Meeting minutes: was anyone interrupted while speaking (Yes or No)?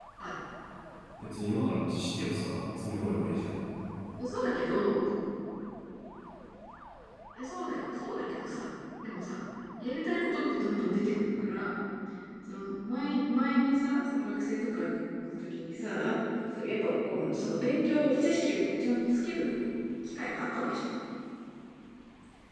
No